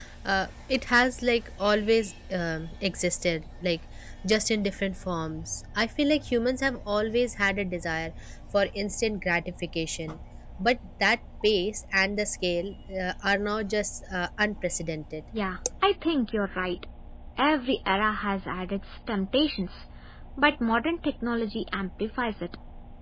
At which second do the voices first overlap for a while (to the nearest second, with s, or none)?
none